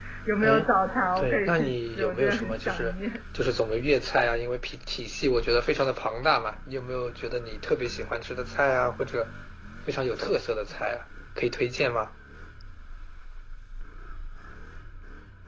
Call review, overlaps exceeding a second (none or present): present